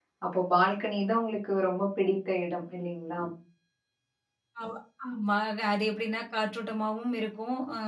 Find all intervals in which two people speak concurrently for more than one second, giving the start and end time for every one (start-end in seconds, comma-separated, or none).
none